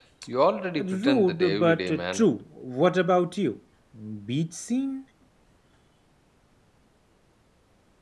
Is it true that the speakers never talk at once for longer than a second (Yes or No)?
No